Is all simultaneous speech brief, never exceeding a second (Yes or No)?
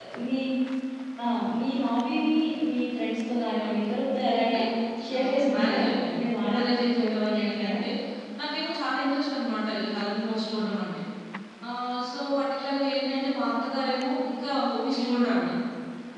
No